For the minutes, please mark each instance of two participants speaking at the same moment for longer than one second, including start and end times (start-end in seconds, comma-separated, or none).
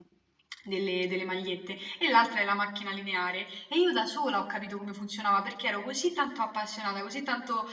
none